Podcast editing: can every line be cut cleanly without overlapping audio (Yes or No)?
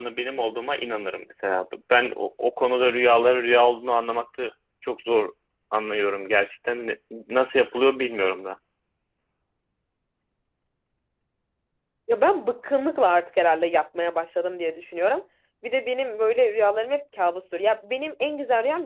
Yes